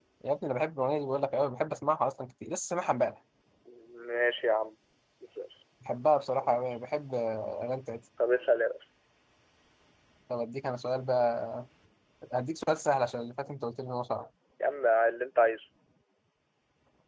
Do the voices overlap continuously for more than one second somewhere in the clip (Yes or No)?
No